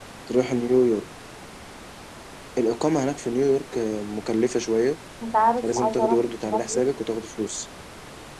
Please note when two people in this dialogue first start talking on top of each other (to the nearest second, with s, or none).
6 s